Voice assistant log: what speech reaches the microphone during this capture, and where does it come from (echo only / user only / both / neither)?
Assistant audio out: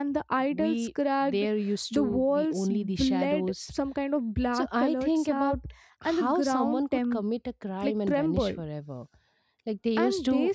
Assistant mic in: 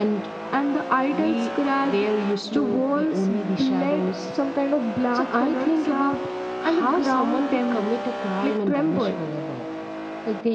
echo only